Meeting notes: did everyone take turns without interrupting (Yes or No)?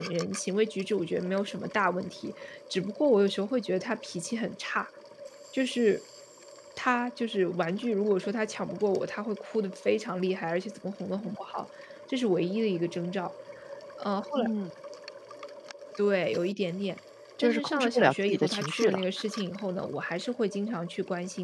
No